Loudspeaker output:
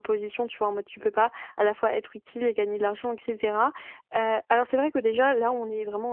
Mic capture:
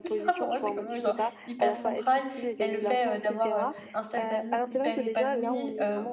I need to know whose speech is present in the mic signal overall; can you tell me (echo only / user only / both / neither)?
both